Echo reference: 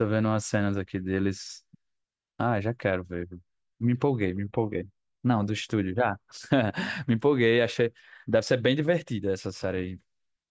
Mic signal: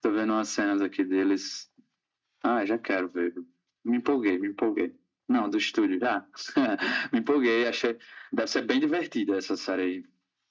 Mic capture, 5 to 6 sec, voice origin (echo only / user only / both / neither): echo only